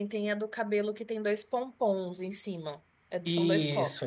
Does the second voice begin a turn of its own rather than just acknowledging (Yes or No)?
Yes